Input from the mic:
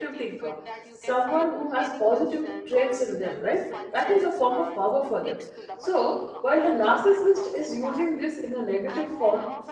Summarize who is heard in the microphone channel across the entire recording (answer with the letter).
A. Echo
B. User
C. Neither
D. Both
D